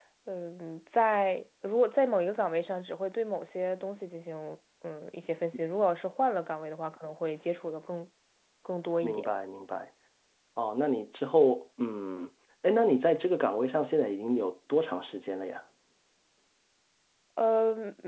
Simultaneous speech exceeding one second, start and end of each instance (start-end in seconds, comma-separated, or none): none